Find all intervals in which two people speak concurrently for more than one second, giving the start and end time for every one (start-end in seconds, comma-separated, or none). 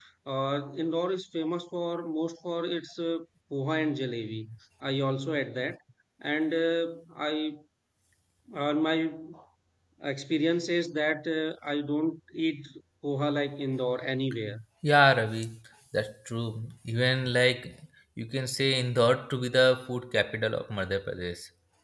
none